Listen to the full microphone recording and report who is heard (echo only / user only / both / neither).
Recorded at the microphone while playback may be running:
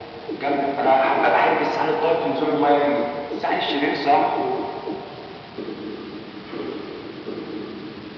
echo only